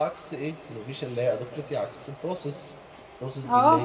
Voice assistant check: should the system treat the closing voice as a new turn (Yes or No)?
Yes